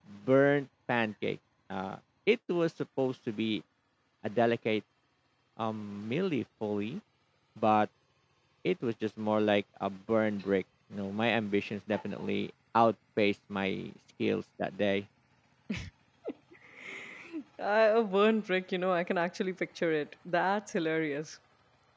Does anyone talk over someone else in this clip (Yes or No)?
No